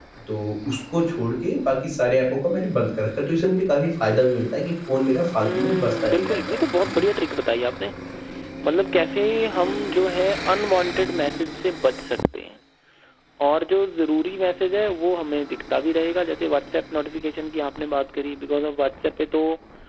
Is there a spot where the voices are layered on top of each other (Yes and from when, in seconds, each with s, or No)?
Yes, from 5.4 s